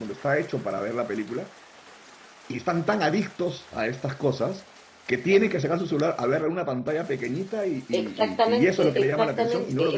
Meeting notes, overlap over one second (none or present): present